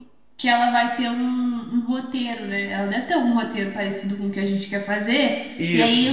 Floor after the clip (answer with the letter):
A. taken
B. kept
B